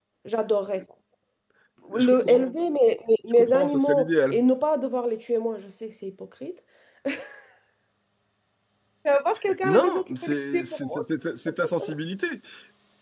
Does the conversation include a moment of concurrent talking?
Yes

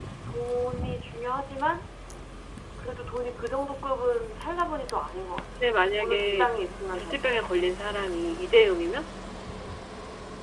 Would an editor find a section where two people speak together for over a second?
No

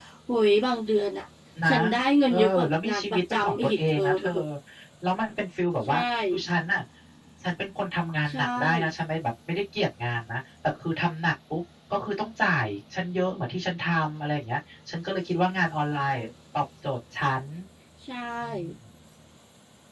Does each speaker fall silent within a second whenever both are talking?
No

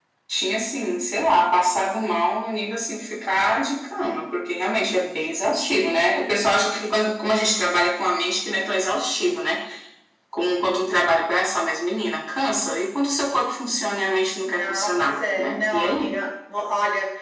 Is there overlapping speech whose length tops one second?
Yes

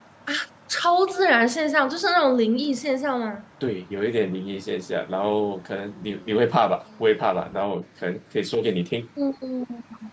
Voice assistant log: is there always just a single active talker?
Yes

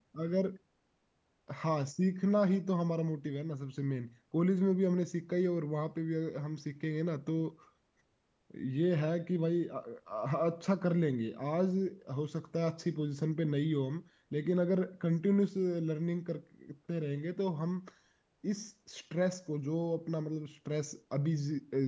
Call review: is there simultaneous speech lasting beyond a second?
No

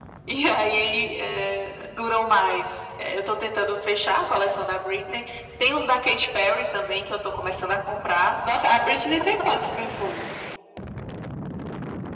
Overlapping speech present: No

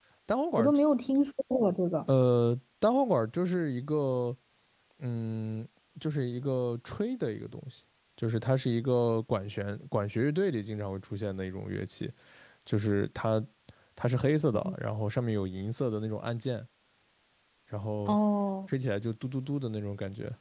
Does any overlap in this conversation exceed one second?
No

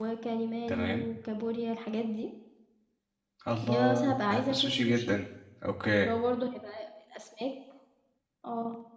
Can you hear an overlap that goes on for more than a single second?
Yes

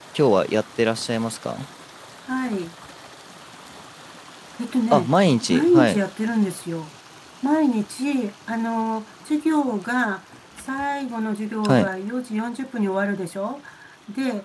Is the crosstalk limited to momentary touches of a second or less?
Yes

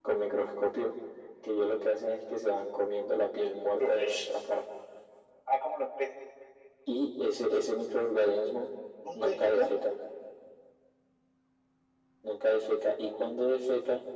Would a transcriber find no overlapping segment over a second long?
Yes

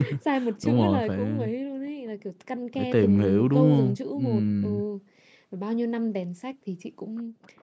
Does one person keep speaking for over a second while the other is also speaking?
Yes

